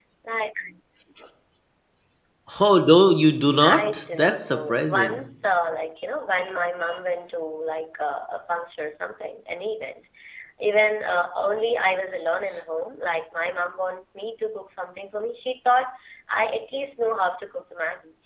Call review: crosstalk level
present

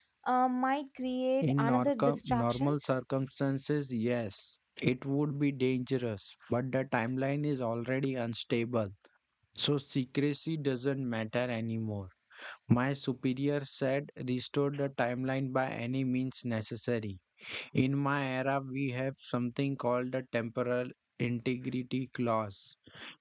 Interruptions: present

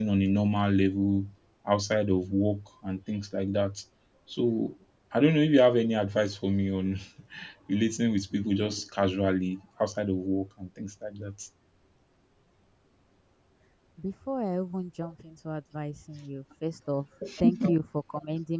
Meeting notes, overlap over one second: none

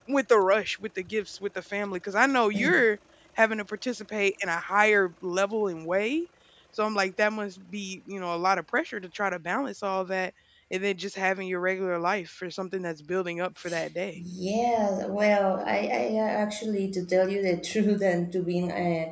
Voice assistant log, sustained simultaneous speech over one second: none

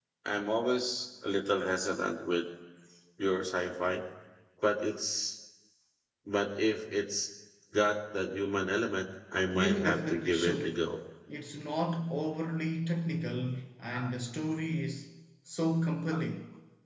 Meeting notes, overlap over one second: present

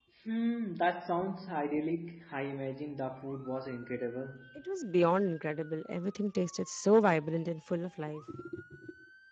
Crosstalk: none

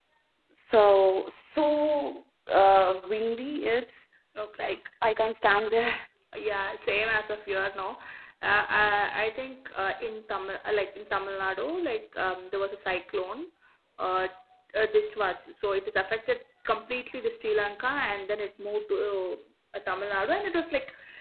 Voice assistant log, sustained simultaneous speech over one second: none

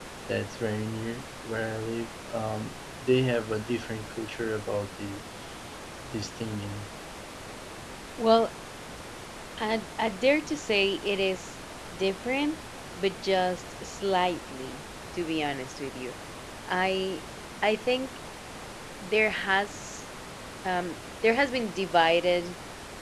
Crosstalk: none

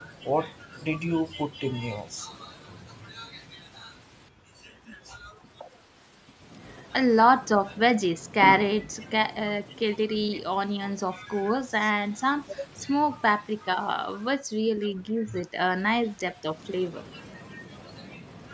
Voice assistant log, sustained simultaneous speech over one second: none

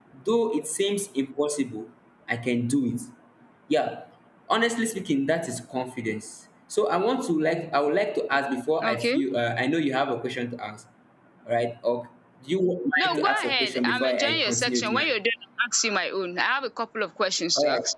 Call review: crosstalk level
present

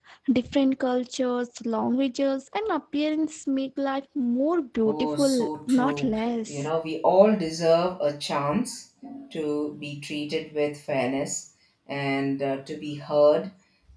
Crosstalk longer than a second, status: present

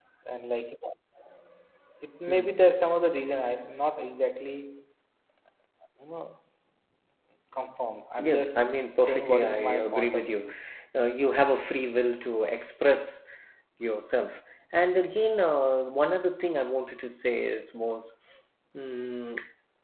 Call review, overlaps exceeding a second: present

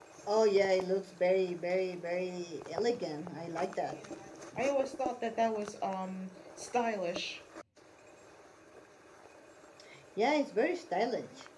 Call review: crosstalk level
none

